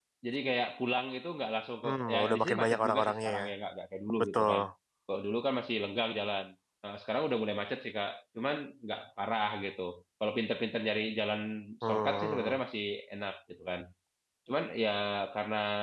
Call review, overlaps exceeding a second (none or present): present